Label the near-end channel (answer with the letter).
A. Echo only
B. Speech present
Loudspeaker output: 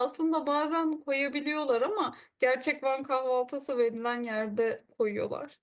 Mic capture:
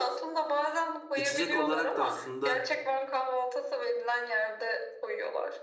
B